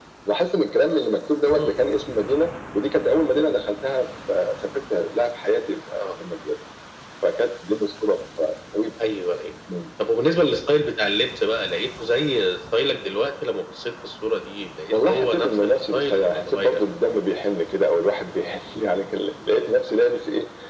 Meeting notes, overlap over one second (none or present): present